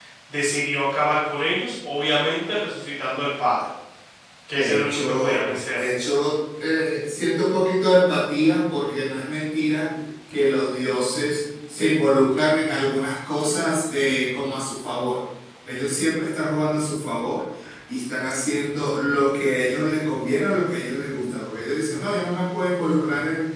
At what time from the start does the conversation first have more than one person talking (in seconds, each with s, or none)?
4.5 s